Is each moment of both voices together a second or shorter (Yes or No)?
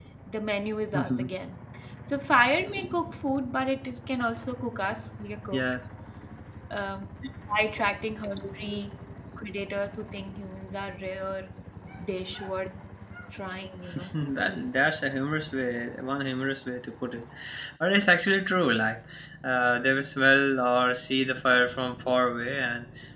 Yes